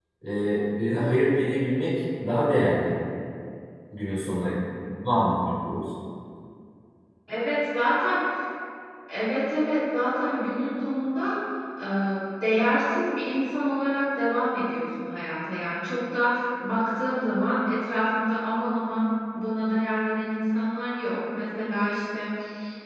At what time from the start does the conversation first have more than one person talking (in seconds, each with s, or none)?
none